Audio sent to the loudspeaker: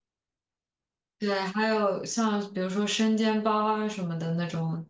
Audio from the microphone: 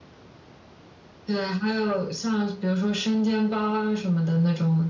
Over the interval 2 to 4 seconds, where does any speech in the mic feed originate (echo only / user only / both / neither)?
echo only